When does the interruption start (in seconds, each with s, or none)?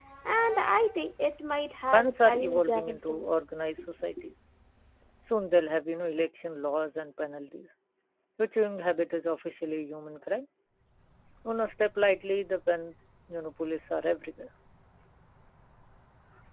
1.9 s